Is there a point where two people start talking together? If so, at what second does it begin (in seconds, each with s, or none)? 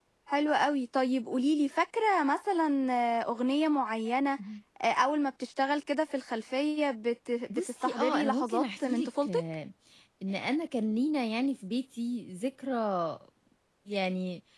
7.5 s